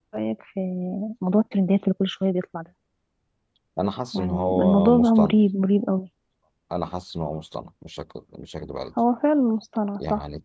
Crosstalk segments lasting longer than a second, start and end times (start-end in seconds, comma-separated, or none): 4.1-5.3